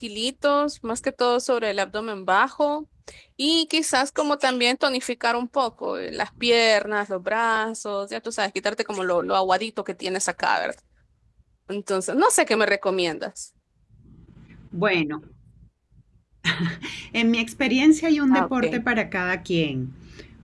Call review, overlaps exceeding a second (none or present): none